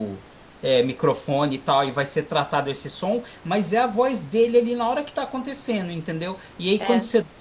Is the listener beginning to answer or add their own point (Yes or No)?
No